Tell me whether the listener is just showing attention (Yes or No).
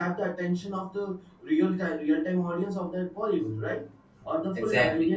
Yes